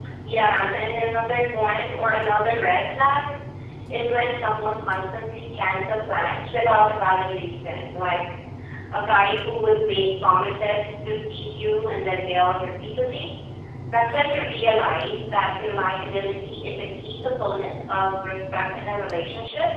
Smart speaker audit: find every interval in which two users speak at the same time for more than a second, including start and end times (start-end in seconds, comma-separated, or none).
none